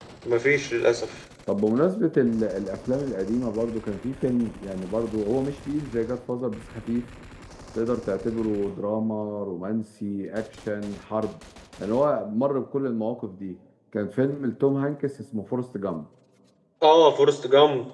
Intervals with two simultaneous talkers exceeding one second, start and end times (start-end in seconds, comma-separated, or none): none